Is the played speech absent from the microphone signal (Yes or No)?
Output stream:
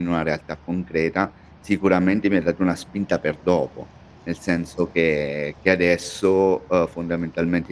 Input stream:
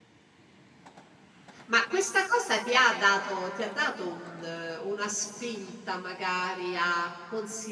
Yes